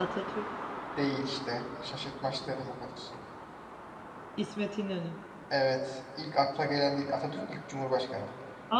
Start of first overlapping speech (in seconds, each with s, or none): none